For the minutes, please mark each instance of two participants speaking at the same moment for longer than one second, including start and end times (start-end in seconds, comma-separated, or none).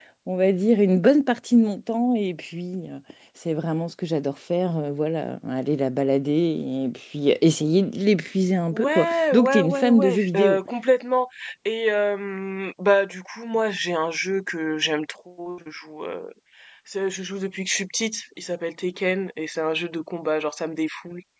8.7-10.6